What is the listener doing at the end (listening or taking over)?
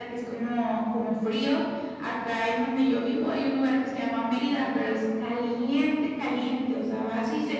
listening